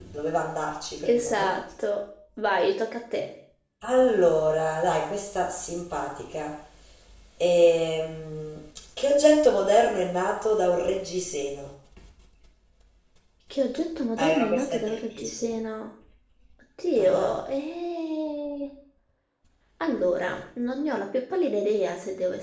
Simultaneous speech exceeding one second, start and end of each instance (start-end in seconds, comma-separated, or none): 14.2-15.5